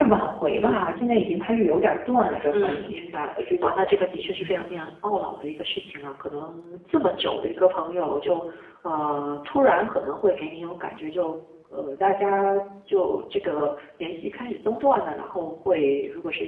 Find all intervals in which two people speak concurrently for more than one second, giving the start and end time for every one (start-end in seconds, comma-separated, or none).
3.4-4.6